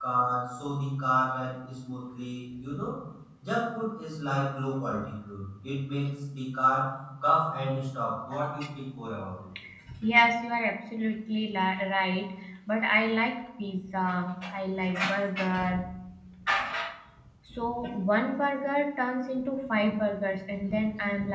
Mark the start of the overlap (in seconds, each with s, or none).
none